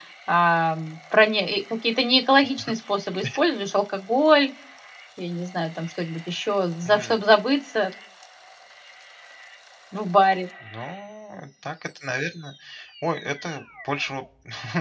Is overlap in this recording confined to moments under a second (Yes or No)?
Yes